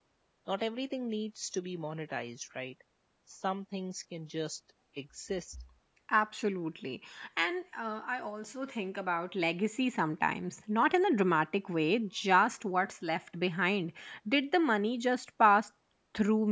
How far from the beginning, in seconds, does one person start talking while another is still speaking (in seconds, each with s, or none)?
none